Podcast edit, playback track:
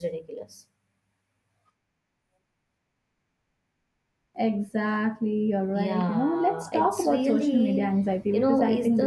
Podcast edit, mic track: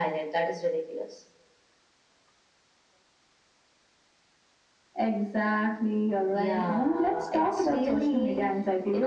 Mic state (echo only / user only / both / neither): echo only